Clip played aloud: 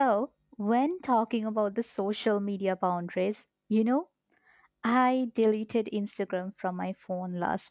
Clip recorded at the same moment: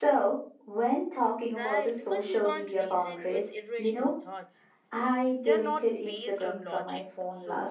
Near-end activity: present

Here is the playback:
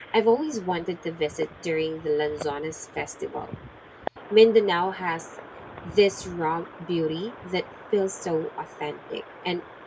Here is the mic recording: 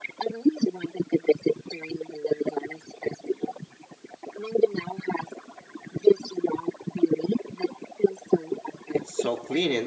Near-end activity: present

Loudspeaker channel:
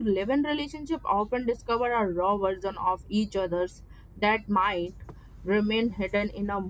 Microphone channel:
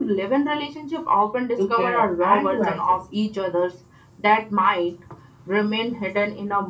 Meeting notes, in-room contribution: present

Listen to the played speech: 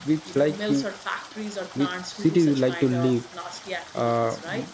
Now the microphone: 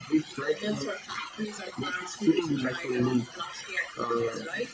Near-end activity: none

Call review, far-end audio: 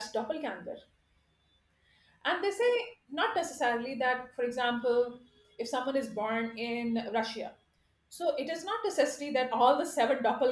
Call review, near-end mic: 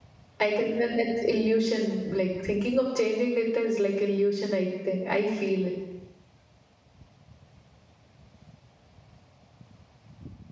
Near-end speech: present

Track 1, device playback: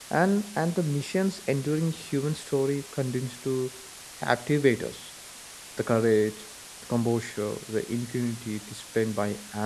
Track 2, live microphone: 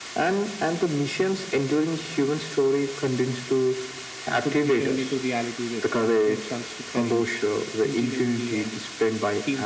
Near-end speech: present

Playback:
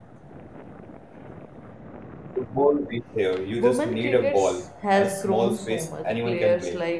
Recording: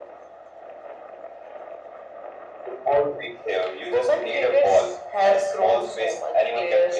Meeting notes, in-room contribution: none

